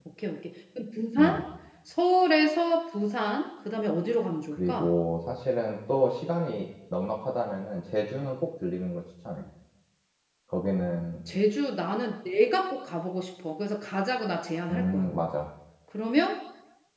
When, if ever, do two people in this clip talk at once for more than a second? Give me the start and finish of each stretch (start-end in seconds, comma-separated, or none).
none